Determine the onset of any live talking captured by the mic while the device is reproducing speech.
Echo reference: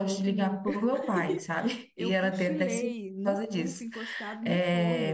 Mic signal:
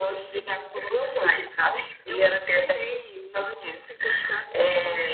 none

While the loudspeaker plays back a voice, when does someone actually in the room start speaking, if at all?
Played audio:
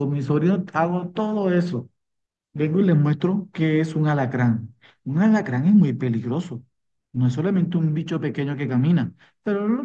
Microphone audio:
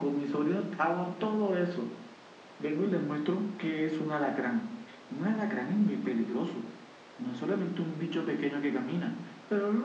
none

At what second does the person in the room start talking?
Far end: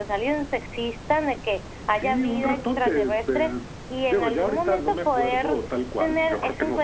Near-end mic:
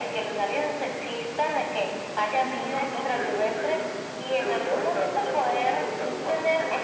none

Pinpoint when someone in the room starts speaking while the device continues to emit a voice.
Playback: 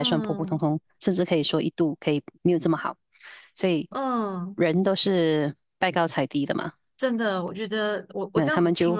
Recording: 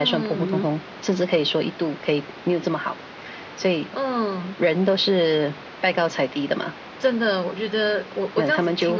0.3 s

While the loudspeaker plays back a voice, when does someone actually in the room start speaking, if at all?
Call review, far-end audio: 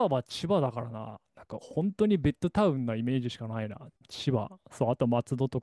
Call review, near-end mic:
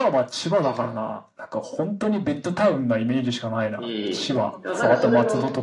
3.8 s

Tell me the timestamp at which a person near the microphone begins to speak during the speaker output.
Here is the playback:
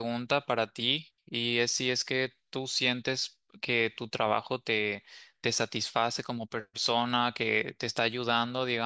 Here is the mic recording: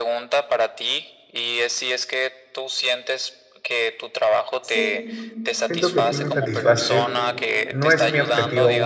4.6 s

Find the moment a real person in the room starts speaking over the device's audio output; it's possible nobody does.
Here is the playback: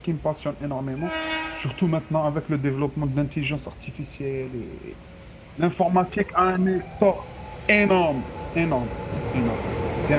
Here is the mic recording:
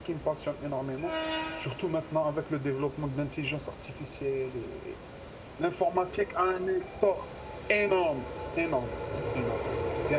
none

